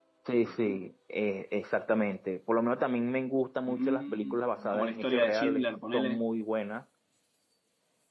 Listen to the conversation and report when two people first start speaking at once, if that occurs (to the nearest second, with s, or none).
4 s